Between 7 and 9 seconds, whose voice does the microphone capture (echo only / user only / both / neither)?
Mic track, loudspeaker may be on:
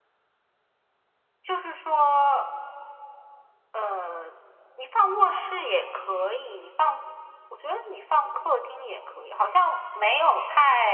echo only